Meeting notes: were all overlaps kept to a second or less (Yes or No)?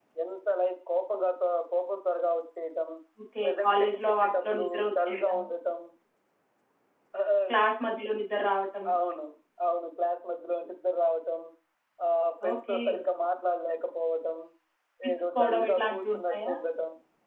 No